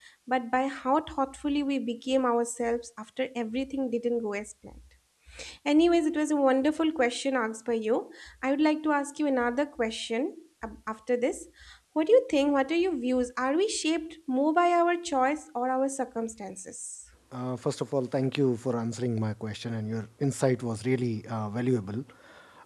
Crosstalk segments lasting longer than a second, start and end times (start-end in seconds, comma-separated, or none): none